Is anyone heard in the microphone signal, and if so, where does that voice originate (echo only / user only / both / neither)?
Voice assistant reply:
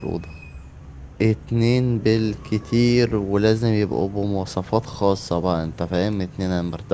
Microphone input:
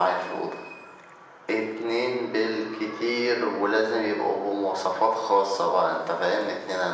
echo only